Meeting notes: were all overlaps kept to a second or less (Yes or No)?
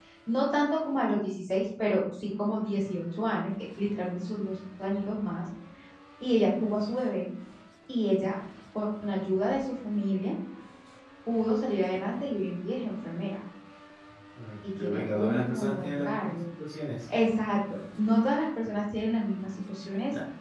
No